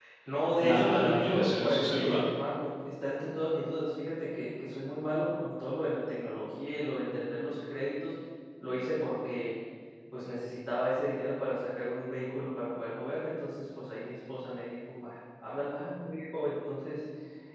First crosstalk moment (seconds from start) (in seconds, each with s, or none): 0.6 s